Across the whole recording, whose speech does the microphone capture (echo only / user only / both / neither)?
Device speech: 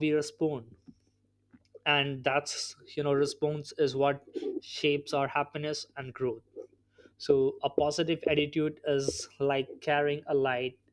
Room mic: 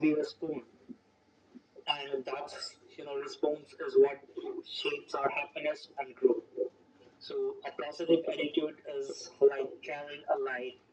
echo only